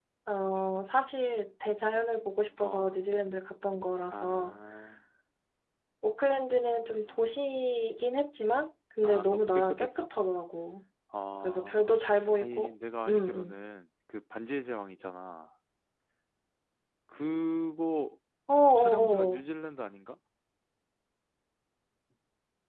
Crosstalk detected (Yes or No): Yes